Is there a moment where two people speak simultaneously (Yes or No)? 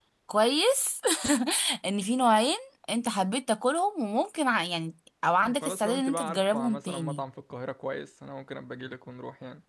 Yes